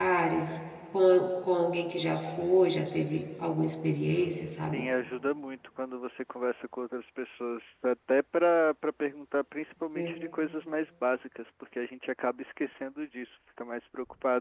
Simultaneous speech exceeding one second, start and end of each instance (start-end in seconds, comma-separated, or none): none